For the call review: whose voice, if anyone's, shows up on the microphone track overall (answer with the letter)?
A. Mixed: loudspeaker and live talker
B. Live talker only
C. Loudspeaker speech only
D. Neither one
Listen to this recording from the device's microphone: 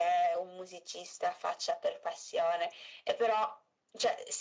C